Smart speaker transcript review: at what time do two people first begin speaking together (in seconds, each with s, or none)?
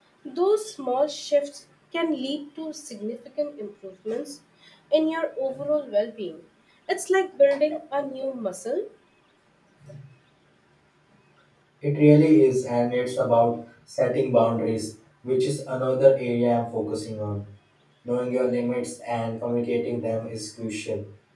none